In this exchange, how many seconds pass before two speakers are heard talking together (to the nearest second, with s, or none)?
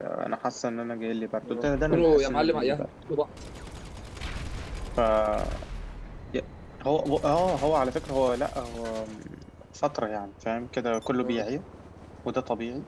1 s